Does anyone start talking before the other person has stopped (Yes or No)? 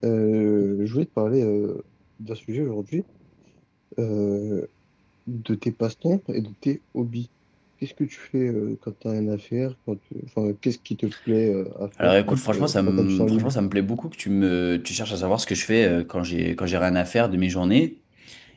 Yes